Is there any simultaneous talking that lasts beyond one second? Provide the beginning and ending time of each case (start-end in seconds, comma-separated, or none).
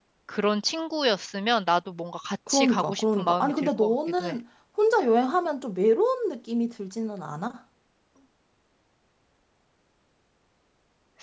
2.5-4.4